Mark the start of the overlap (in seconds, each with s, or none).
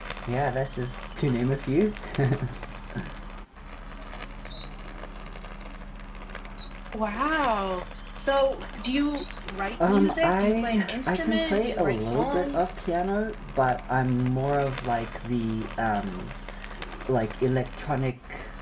9.8 s